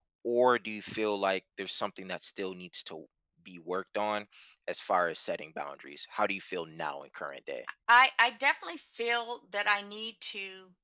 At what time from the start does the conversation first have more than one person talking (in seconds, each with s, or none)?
none